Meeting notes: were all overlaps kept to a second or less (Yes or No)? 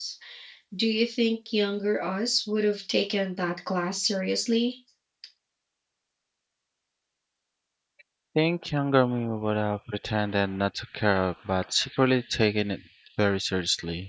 Yes